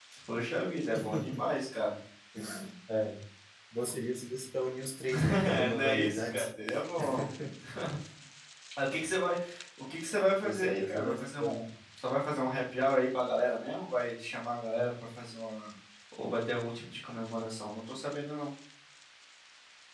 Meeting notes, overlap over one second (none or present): present